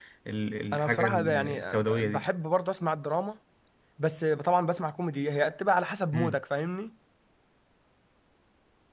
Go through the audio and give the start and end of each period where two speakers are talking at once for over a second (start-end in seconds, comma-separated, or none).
0.7-2.2